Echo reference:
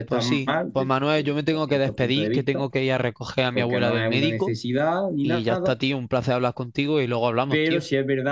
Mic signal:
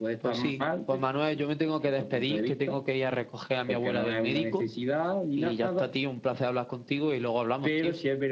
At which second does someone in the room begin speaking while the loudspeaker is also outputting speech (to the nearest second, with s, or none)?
none